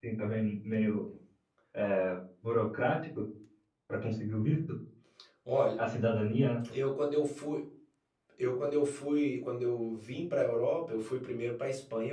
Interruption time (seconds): none

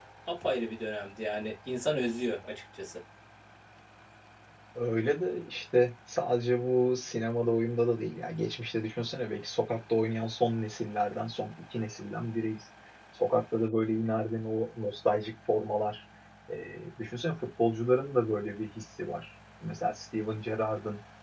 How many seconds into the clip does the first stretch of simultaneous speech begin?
none

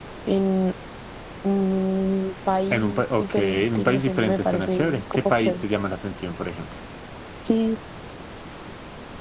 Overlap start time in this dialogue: 2.7 s

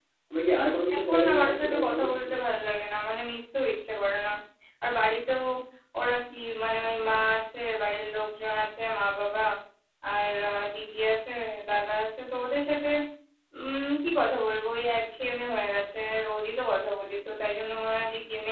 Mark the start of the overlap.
0.9 s

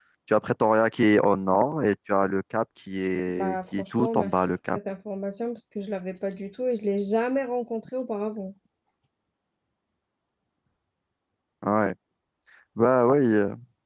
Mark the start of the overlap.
3.3 s

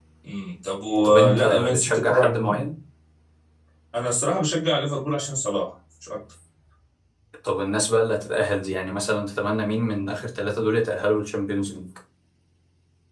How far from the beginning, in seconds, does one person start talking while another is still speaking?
1.0 s

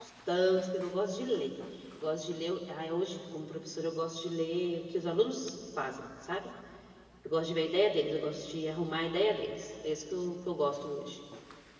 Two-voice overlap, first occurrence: none

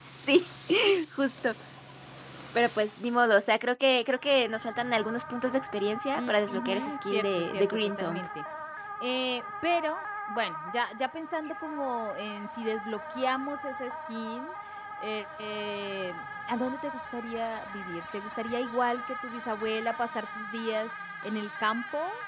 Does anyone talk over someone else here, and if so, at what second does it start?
6.2 s

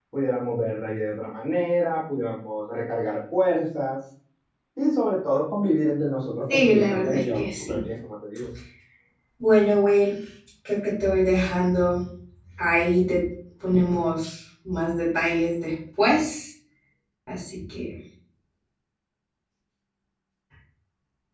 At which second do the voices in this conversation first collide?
6.5 s

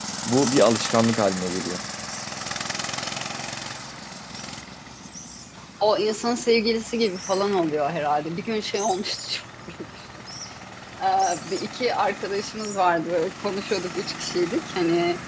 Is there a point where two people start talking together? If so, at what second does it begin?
none

